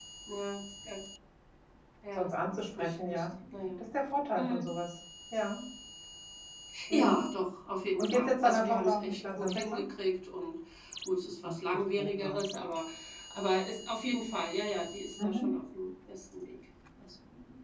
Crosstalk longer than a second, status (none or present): present